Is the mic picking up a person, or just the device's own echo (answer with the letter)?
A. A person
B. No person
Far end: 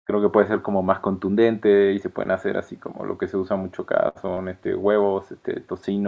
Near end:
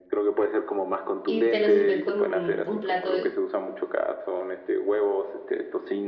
A